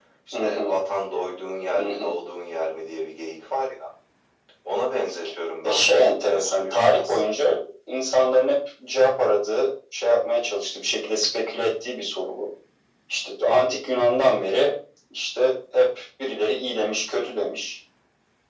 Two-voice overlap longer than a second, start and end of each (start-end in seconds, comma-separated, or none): 5.6-7.2